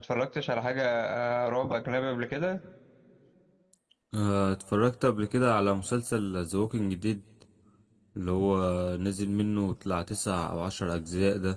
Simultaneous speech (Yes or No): No